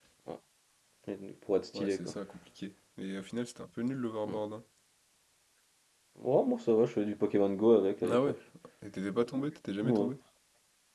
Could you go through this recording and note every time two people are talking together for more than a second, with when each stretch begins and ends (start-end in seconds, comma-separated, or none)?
none